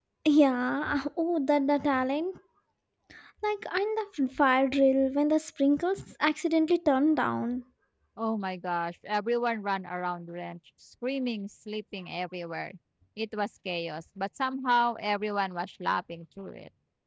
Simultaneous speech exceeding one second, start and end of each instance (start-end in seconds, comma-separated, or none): none